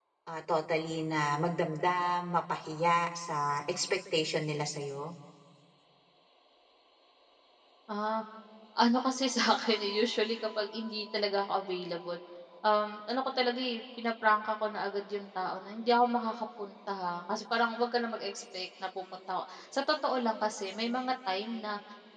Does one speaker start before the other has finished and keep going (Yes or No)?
No